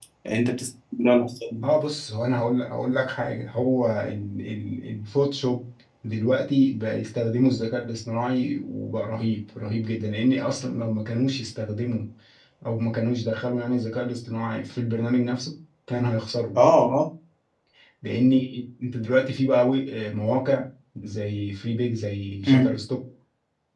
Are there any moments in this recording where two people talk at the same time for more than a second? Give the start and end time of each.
none

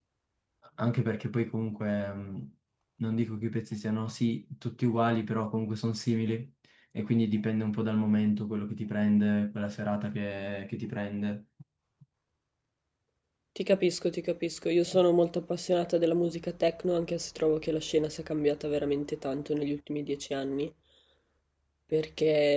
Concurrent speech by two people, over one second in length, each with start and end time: none

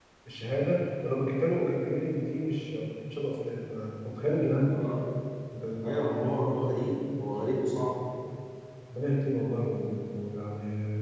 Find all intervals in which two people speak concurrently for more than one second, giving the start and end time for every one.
none

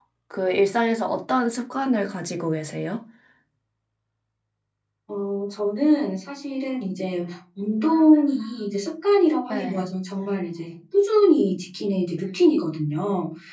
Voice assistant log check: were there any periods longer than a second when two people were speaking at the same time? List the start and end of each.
none

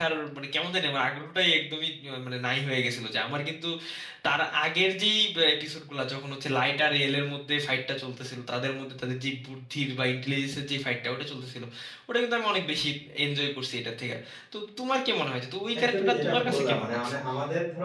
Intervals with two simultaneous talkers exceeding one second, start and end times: 15.9-17.2

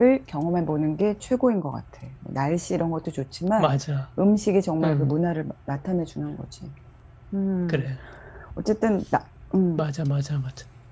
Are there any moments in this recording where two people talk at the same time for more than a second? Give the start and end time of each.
none

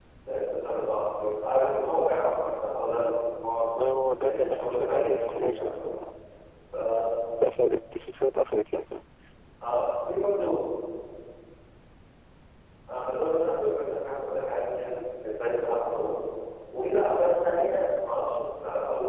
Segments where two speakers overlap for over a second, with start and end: 4.2-5.7

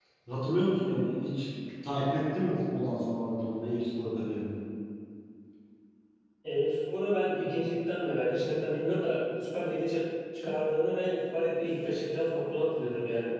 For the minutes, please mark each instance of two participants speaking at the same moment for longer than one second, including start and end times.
none

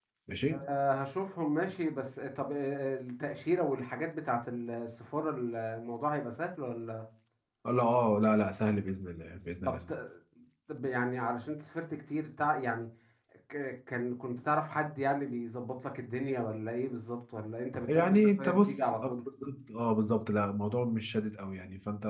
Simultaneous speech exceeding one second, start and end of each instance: 17.9-19.1

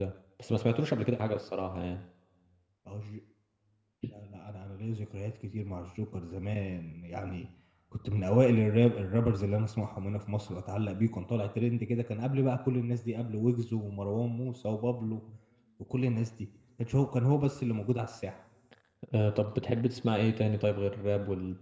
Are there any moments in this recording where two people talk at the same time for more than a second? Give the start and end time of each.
none

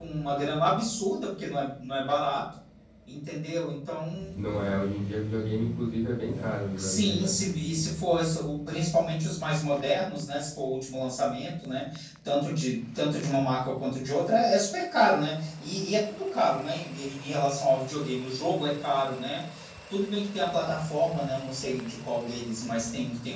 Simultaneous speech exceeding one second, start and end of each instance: none

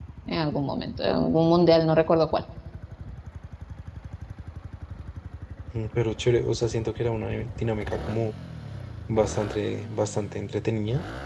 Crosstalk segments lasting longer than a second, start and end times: none

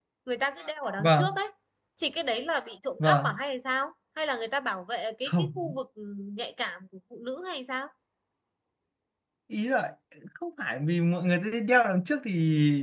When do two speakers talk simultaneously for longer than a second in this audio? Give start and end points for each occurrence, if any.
none

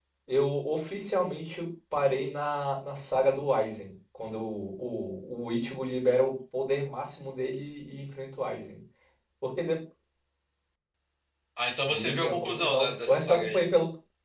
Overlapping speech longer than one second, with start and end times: 11.8-13.6

